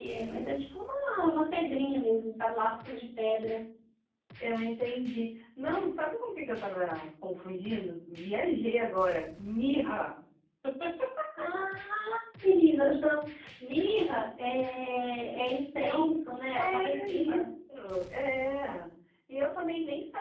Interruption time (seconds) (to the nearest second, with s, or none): 16 s